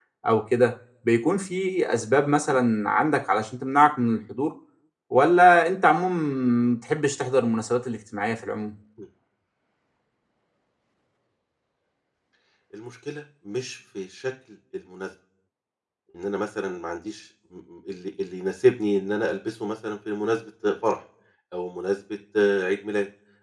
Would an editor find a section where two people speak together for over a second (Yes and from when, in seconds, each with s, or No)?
No